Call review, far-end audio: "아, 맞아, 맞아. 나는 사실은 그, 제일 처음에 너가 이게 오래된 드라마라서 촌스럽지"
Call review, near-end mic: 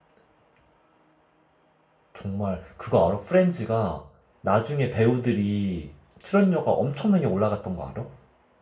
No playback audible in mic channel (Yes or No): Yes